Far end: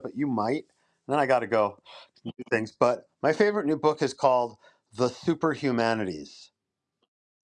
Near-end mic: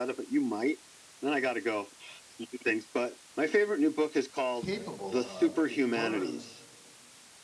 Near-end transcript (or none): capable of it runs